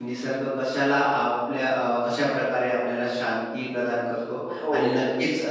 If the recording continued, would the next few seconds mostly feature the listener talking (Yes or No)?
No